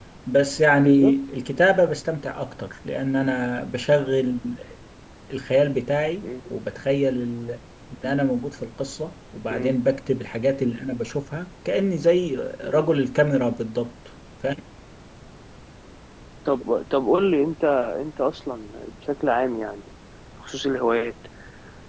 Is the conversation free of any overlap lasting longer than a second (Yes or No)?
Yes